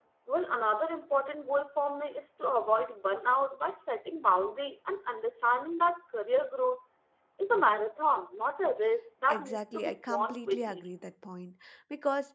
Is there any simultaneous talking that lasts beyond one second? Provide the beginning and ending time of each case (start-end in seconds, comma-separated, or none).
9.3-10.8